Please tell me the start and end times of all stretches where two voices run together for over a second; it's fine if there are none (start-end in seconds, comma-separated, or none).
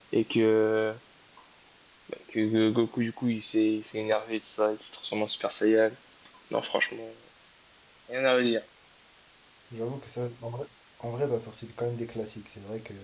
none